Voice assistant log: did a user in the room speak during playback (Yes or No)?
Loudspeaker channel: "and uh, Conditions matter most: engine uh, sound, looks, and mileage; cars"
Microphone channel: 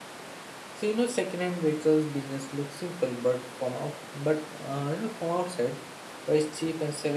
Yes